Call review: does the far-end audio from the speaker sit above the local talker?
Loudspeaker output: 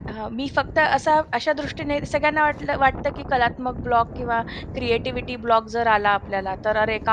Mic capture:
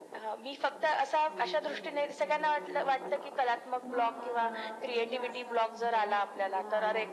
Yes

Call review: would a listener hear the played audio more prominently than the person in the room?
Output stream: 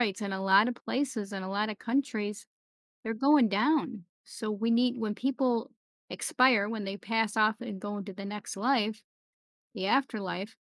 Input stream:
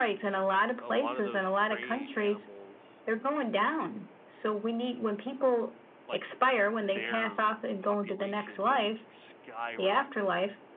Yes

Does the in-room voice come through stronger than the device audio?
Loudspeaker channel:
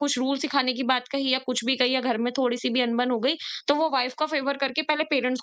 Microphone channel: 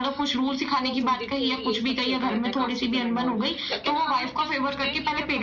No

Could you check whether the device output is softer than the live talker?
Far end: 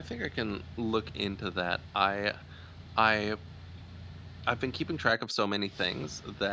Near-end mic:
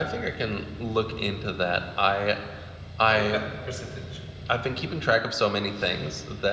No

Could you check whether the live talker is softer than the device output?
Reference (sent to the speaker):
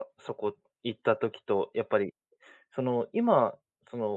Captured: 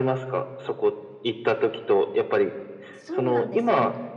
Yes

